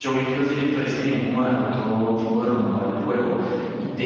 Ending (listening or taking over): listening